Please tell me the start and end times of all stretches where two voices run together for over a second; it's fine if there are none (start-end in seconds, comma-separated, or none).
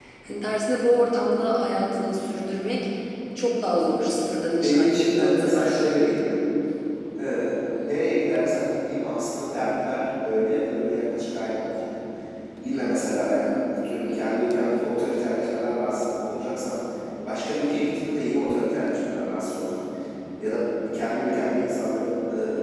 4.5-5.9